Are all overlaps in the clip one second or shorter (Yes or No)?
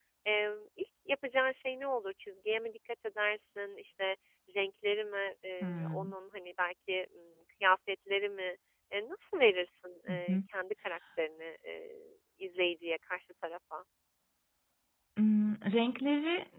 Yes